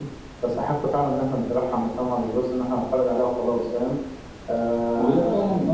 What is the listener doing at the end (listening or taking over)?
taking over